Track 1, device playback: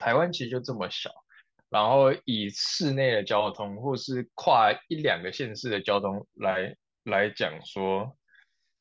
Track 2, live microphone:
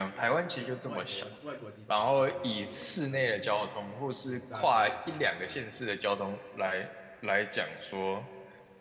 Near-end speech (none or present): present